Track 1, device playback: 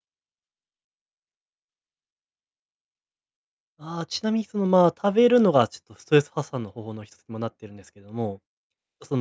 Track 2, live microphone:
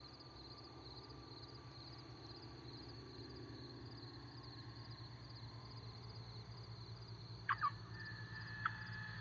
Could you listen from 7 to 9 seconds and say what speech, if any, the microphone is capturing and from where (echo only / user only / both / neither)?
neither